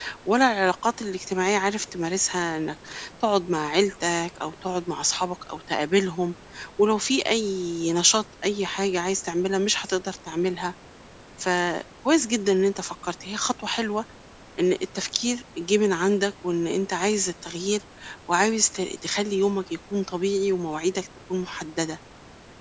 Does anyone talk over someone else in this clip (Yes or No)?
No